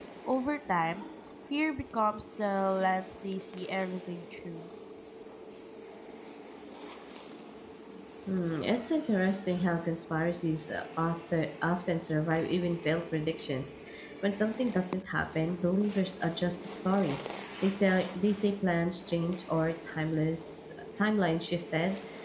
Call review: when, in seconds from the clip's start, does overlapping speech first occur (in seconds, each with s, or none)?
none